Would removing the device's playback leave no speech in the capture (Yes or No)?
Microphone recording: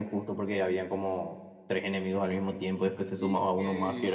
No